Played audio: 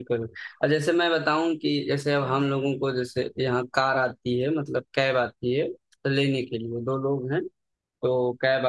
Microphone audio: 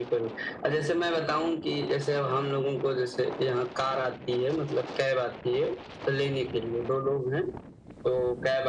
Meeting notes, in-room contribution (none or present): none